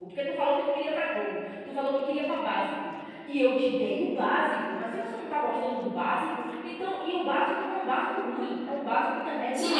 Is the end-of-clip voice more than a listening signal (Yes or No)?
Yes